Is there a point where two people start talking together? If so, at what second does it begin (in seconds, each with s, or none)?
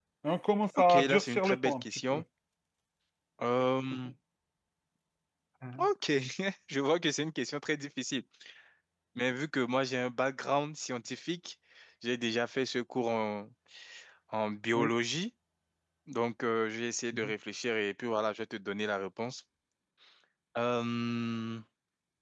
0.8 s